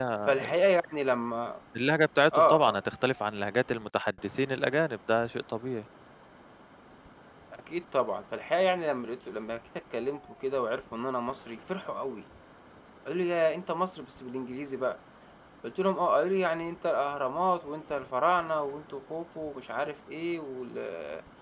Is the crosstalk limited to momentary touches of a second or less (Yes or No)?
Yes